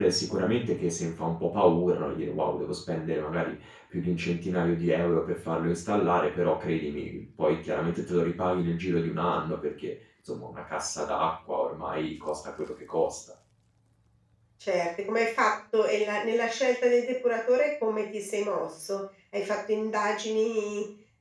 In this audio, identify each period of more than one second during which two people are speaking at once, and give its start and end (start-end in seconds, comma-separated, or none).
none